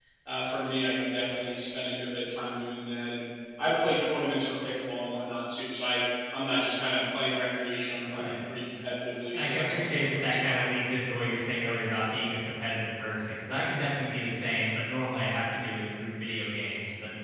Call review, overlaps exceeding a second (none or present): present